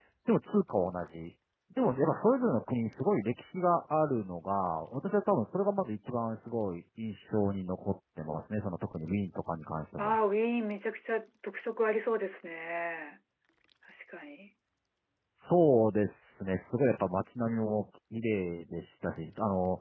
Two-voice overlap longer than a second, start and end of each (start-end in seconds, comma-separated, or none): none